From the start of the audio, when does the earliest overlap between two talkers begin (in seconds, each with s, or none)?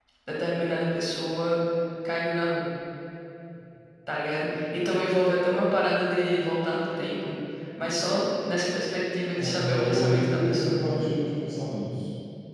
9.4 s